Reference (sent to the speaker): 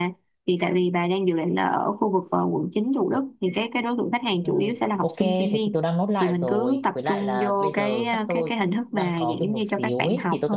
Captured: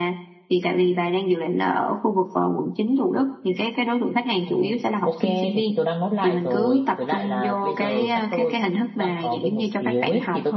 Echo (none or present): present